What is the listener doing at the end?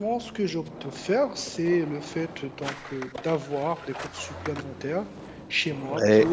listening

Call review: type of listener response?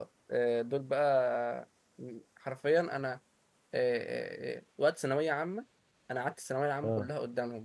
listening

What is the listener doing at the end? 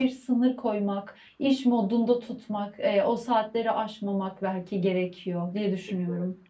taking over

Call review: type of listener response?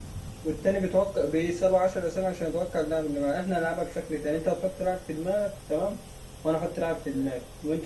listening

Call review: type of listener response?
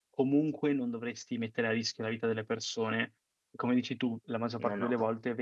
listening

